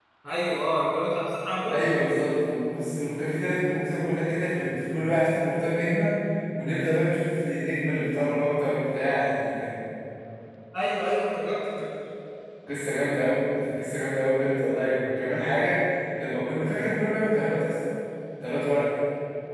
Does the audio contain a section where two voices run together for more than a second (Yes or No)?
No